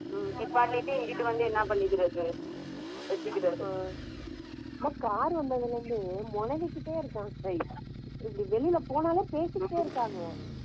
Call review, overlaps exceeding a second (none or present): none